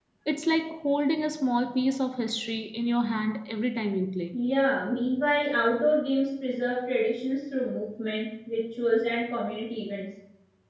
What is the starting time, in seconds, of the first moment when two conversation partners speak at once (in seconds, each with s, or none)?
none